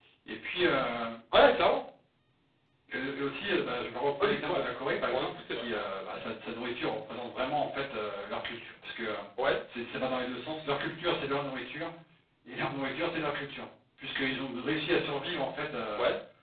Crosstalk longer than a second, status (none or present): none